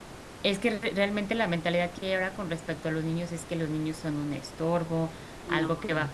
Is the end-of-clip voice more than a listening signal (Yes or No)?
No